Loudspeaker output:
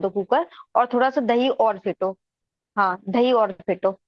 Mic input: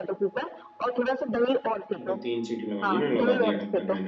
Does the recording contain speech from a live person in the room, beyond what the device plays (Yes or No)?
Yes